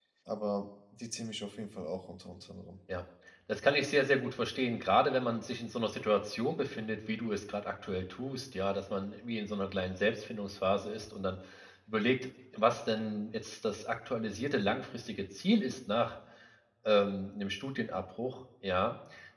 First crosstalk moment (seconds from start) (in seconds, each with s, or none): none